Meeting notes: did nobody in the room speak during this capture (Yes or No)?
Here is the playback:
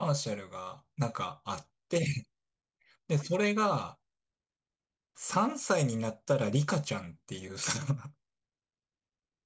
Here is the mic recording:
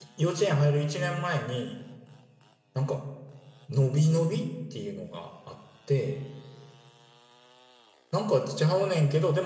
No